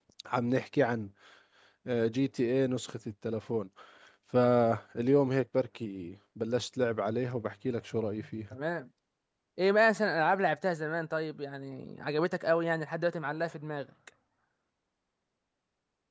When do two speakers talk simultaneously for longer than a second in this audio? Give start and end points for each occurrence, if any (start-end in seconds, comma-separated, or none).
none